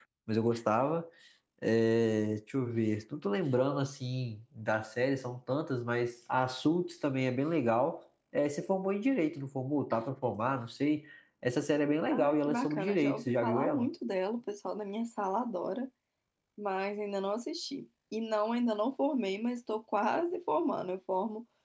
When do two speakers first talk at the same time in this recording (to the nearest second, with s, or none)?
12 s